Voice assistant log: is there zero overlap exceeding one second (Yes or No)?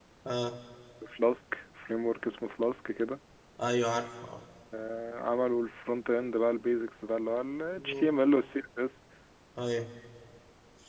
Yes